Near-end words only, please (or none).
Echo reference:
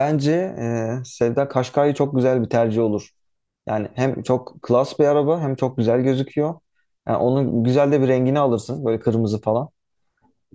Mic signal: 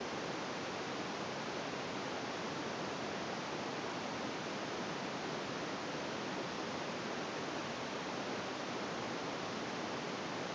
none